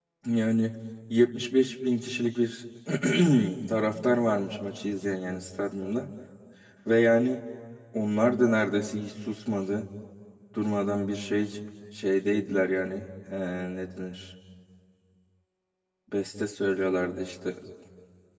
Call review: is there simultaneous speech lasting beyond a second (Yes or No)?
No